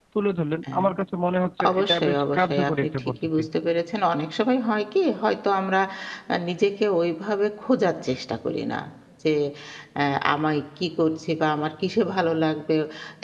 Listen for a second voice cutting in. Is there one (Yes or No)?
Yes